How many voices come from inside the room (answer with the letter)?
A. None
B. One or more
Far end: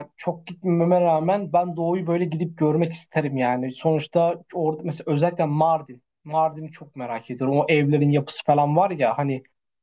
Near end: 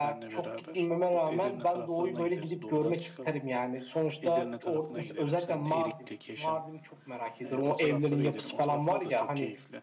B